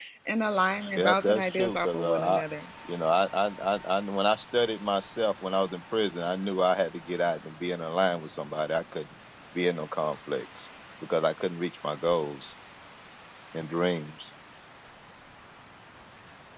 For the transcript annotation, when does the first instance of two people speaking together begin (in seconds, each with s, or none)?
1.0 s